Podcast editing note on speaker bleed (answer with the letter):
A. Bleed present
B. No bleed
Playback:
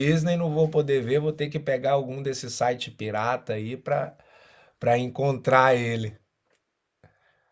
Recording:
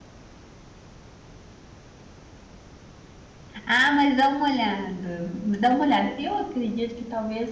B